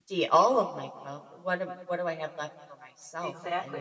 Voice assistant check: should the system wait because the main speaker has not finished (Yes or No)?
No